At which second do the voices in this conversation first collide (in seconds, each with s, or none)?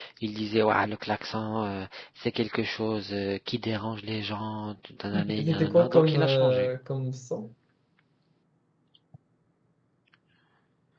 5.1 s